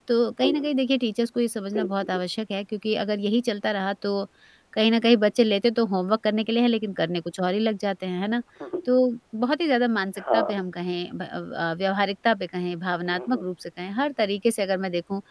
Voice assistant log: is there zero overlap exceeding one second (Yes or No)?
Yes